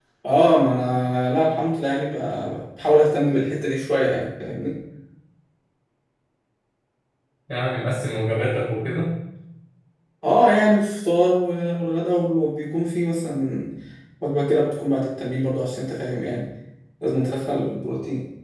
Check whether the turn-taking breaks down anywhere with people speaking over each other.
No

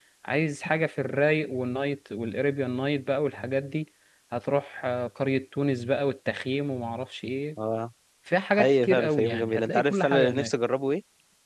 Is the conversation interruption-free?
No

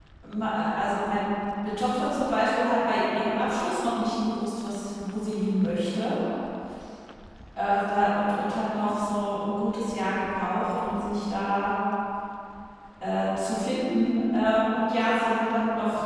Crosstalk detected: No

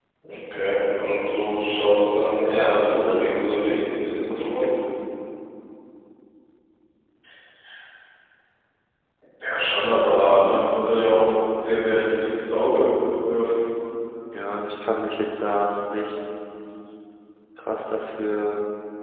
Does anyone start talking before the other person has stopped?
Yes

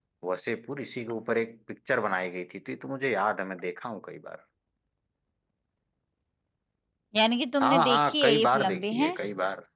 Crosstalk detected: Yes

